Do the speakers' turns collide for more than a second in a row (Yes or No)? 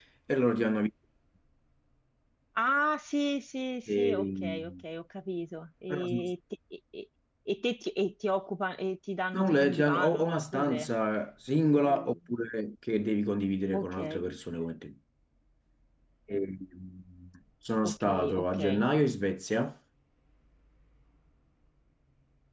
Yes